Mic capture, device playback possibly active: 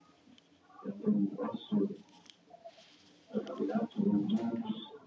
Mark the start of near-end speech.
none

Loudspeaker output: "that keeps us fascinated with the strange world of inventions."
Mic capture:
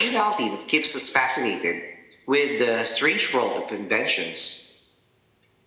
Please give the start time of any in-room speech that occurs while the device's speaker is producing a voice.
none

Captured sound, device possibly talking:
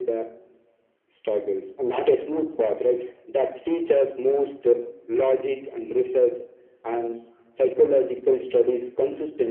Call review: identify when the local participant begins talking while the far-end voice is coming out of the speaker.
none

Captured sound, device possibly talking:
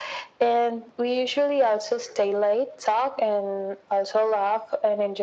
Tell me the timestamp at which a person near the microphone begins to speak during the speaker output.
none

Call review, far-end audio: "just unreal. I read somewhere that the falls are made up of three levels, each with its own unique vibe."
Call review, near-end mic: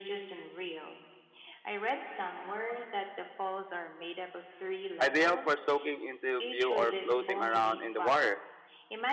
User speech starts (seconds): 5 s

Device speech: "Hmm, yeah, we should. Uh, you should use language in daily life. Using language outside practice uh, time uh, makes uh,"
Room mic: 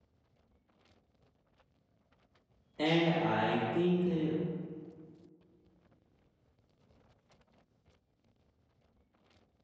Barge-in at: 3 s

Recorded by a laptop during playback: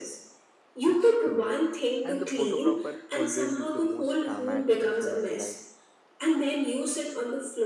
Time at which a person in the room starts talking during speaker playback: 1 s

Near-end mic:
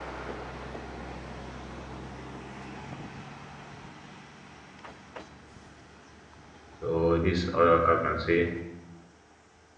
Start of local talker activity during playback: 7 s

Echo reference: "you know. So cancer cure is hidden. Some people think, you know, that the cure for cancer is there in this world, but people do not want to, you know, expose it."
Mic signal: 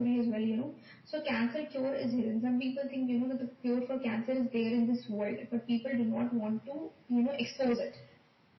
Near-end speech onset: none

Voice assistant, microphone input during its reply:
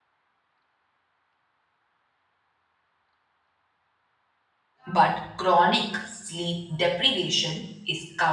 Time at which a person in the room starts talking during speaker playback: 5 s

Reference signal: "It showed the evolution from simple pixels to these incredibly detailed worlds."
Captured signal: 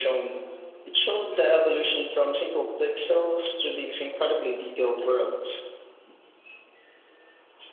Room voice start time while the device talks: none

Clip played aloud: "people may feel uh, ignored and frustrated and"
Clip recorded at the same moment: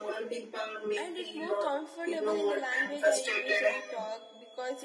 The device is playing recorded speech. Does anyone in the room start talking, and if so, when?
1 s

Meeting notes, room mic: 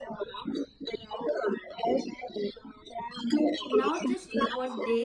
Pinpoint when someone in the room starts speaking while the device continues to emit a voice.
4 s

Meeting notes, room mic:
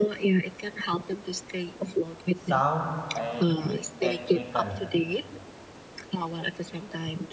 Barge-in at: 2 s

